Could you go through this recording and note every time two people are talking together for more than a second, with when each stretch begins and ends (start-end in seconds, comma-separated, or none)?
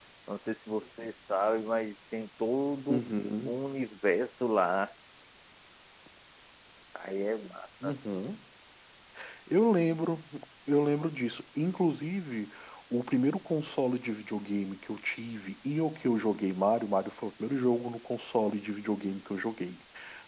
none